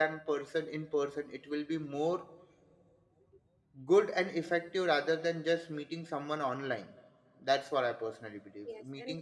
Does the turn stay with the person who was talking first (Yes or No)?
No